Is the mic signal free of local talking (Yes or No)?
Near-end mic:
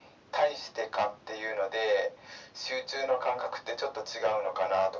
Yes